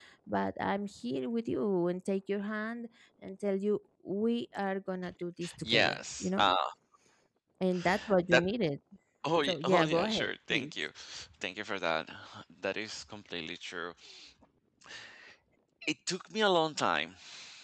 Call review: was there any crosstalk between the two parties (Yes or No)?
Yes